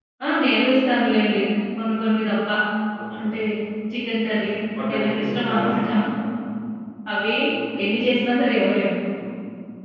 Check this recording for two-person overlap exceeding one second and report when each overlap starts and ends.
4.3-5.8

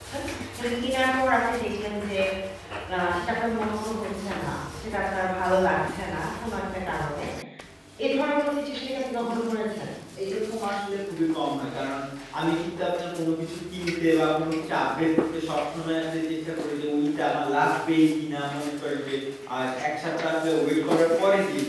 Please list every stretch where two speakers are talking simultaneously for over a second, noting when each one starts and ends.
none

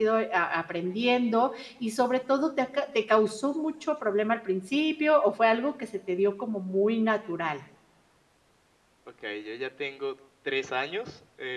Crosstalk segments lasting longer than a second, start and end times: none

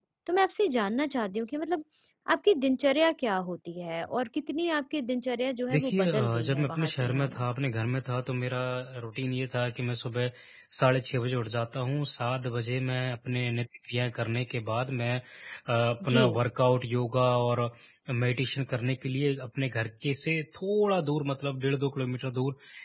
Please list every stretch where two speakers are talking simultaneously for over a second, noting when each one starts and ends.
5.7-7.5

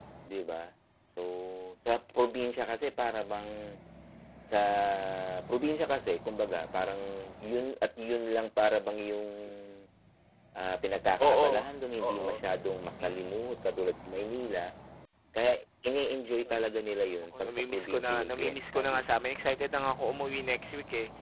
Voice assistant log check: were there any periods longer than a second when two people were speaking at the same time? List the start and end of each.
17.4-19.1

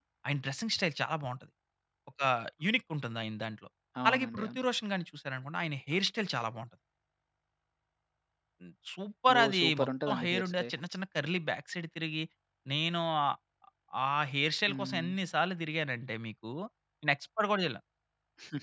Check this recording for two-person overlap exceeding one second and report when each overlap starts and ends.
9.3-10.7

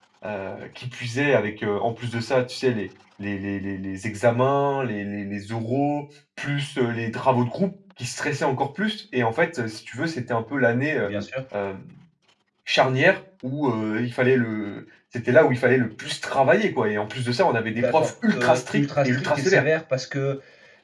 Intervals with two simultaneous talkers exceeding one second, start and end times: 17.7-19.6

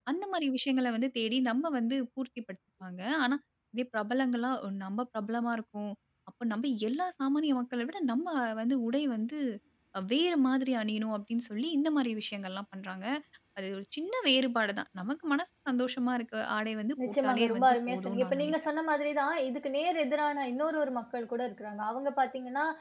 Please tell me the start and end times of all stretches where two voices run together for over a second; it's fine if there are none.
17.1-18.5

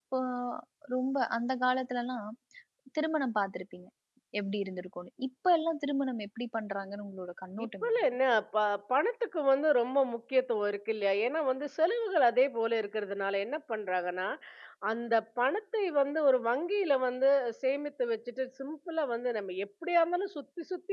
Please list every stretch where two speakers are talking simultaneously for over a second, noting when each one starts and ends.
none

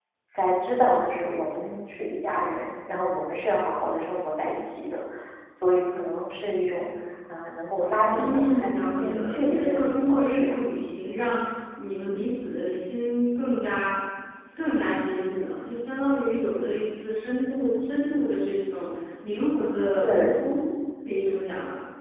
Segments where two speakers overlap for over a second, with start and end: 8.1-10.6

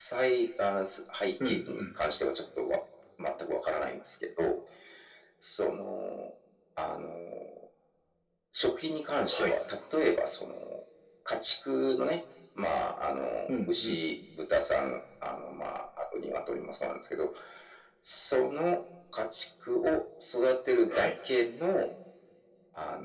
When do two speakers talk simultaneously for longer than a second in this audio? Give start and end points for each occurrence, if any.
none

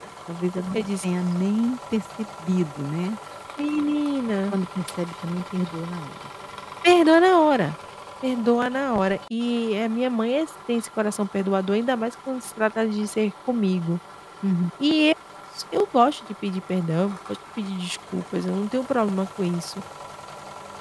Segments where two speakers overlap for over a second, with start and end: none

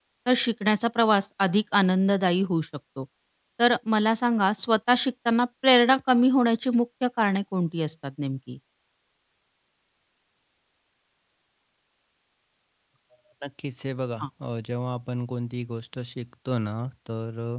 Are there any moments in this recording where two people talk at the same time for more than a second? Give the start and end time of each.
none

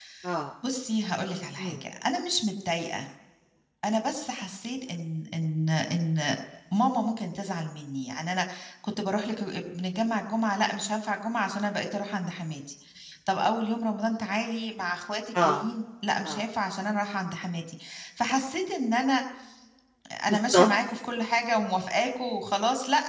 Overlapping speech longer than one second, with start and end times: none

